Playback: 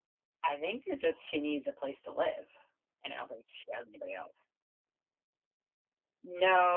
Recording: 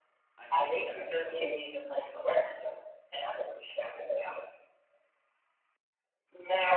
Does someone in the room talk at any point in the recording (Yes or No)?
Yes